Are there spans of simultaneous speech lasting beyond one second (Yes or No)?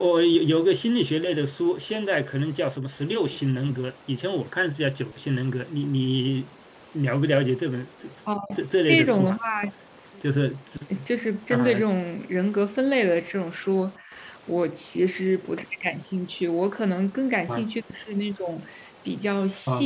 No